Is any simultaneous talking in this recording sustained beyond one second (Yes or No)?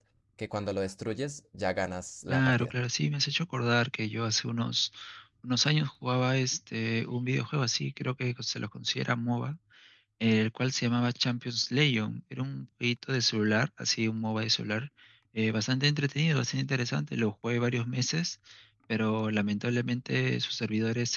No